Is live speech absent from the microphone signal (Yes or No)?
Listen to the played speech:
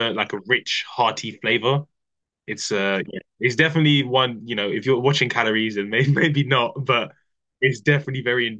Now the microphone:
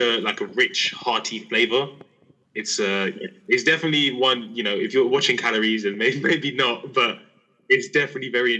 Yes